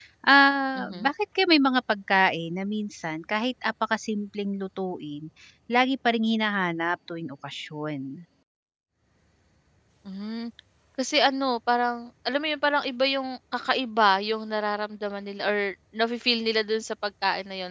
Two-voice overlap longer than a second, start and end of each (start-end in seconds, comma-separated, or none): none